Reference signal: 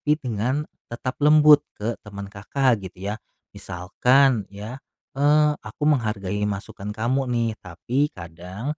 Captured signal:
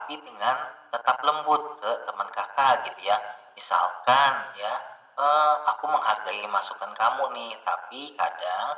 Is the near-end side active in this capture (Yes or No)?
No